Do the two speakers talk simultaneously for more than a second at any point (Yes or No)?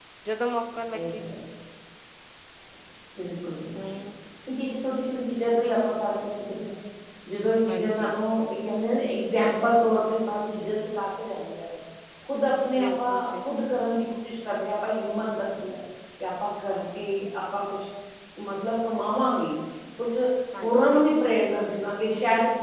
No